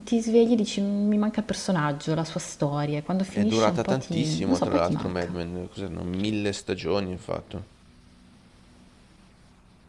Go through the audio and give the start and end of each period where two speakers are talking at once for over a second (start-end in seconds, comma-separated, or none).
3.3-5.3